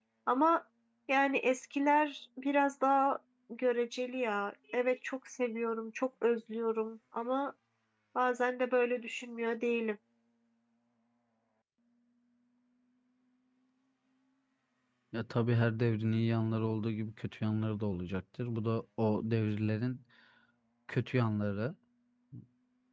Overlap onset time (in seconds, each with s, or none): none